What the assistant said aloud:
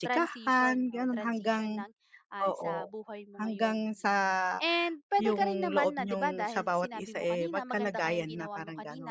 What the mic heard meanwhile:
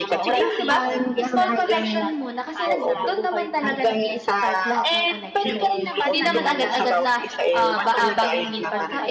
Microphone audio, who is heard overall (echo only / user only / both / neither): both